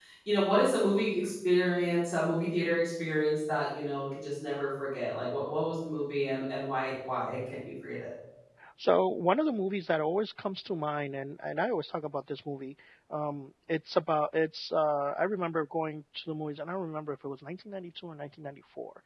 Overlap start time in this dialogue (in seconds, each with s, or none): none